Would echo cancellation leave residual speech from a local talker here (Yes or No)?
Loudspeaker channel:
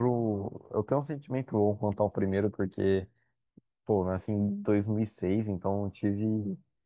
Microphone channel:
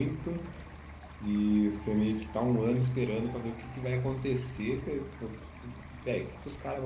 Yes